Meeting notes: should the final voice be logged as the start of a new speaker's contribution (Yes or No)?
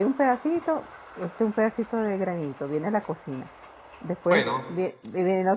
No